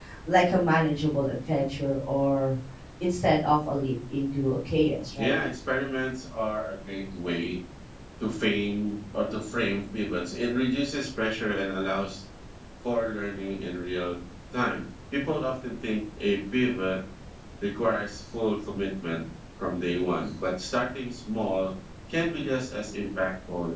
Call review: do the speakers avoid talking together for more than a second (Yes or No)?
Yes